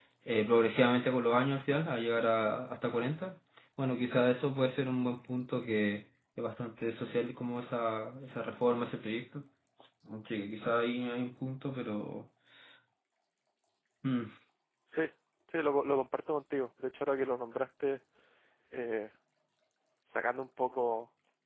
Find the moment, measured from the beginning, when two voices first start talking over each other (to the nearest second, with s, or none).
none